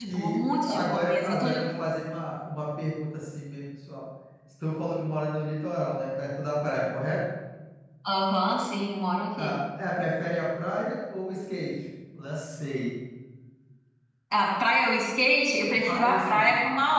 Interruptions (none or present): present